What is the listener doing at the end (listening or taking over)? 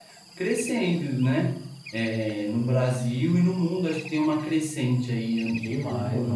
taking over